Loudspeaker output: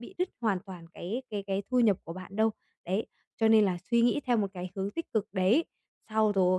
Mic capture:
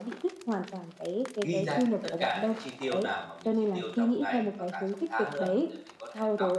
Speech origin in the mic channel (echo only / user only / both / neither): both